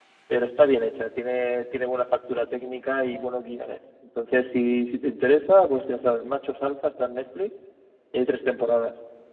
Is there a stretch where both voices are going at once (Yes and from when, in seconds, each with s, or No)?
No